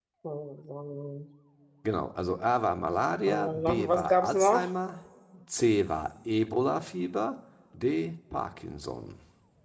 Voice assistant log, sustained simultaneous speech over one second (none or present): present